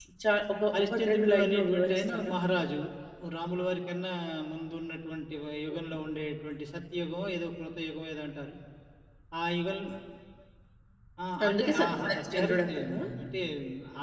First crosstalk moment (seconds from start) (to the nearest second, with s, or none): 1 s